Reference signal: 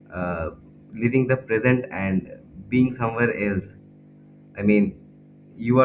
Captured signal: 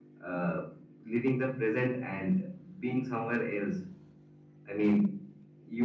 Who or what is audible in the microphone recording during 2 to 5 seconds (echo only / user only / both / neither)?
echo only